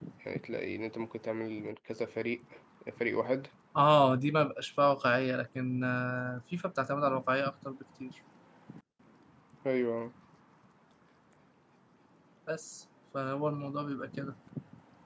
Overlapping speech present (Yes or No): No